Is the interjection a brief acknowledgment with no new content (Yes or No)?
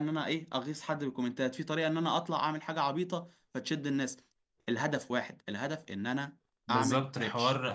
No